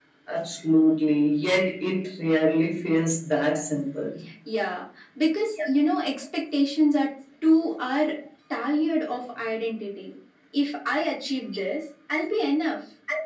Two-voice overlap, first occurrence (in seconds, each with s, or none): none